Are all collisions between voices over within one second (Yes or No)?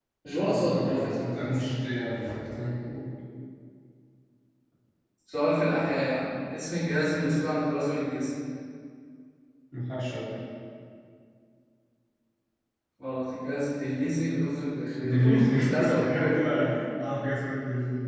No